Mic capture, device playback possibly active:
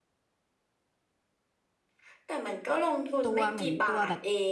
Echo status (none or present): present